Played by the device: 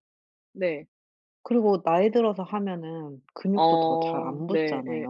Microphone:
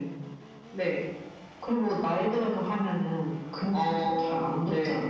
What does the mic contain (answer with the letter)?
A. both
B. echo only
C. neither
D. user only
B